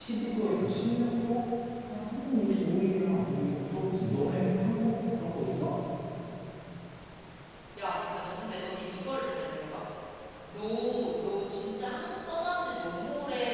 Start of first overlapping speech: none

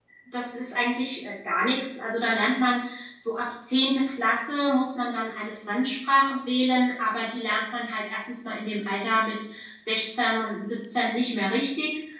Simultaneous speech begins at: none

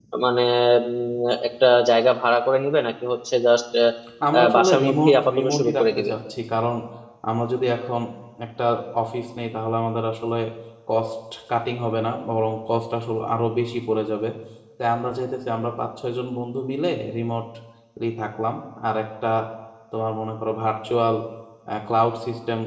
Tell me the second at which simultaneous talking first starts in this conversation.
4.5 s

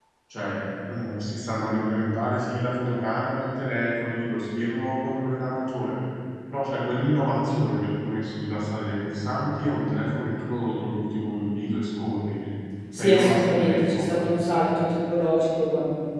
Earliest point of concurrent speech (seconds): 13.0 s

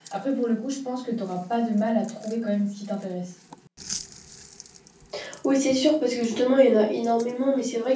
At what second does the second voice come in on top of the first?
none

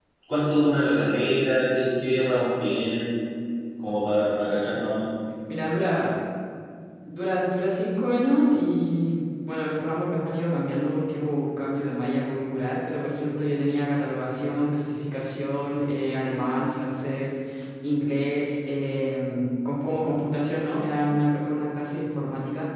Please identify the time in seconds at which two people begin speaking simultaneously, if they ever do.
none

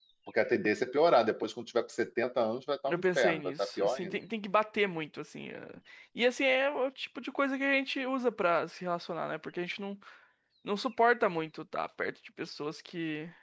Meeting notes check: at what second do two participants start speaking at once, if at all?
2.9 s

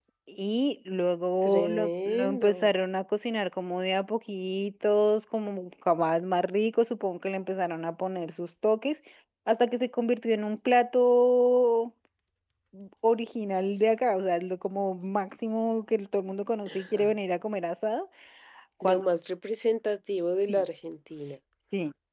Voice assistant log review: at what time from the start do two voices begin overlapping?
1.4 s

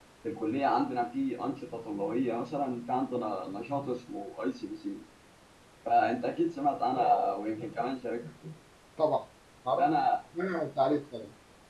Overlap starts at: none

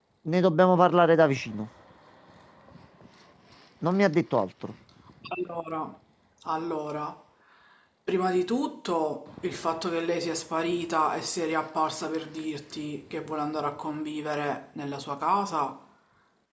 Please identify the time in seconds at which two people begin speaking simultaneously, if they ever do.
none

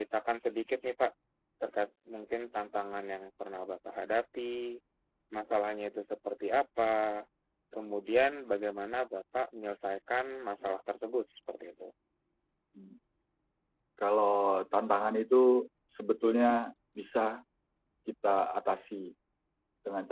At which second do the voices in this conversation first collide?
none

